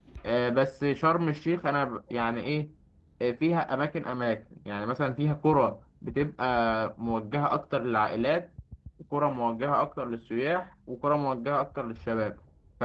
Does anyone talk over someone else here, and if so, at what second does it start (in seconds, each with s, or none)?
none